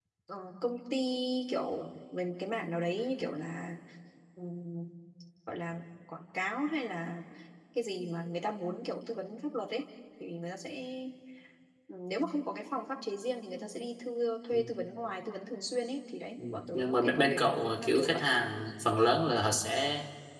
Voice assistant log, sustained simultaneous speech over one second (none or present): present